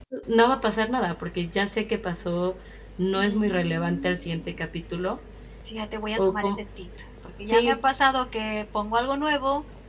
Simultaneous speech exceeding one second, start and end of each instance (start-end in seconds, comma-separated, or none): 3.1-4.6